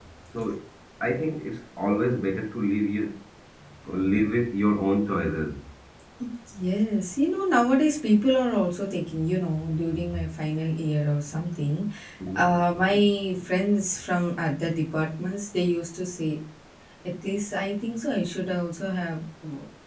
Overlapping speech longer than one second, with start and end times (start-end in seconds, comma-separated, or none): none